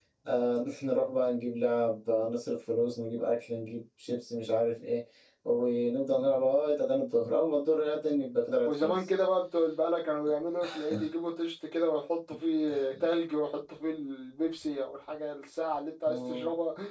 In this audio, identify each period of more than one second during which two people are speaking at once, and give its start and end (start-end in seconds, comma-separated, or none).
none